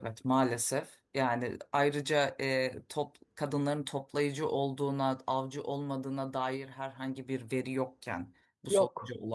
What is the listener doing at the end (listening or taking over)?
listening